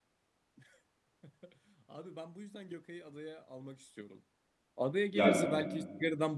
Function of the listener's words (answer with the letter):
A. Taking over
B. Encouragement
B